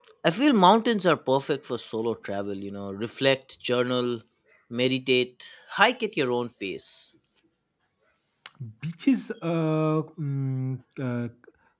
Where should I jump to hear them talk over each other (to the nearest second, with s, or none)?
none